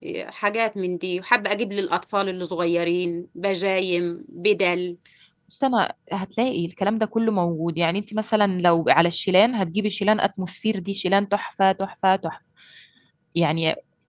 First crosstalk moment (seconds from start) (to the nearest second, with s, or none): none